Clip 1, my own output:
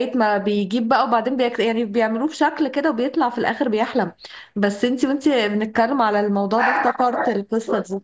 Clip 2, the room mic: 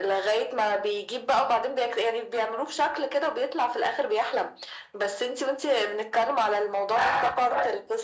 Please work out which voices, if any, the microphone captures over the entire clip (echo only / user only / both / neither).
echo only